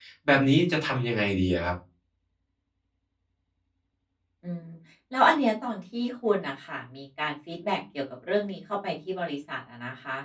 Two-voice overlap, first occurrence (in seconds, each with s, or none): none